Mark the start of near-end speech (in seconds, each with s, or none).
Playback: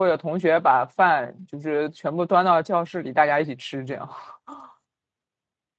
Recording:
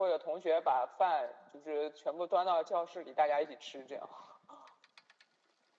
none